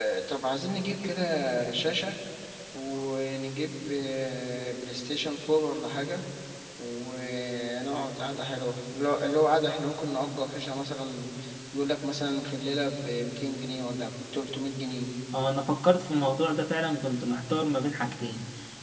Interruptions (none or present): none